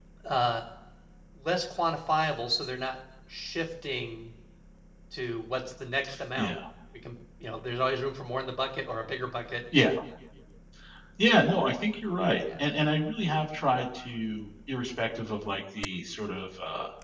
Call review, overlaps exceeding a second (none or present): none